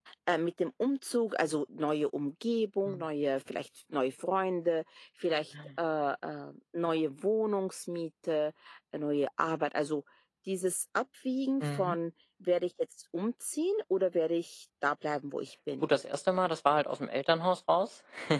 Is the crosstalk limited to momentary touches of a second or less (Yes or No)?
Yes